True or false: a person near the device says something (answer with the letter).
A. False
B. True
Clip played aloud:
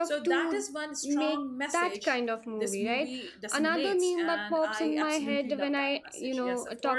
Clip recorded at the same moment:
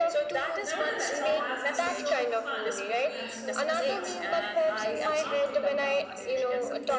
B